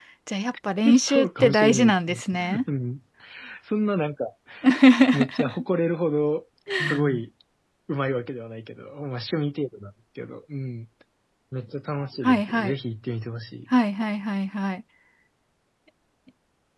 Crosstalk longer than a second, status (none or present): present